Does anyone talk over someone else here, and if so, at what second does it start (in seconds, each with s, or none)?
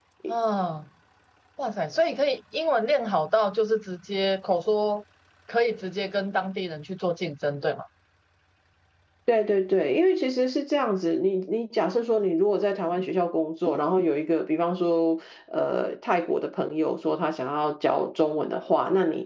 none